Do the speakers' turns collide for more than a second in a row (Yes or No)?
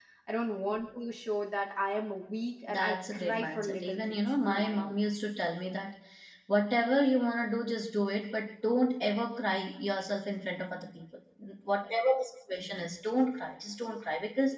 Yes